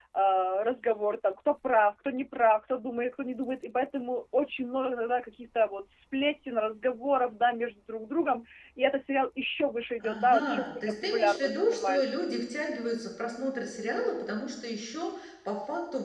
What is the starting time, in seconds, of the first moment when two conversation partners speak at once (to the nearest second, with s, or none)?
10 s